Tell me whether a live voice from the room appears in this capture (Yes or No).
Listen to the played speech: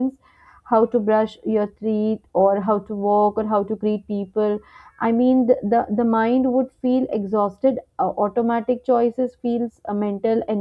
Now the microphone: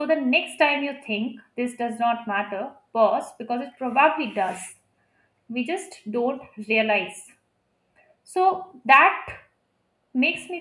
Yes